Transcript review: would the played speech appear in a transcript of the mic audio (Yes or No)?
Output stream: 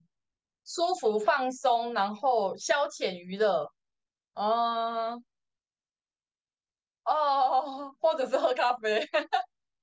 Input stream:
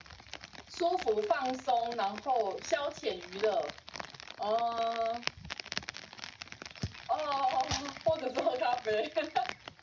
Yes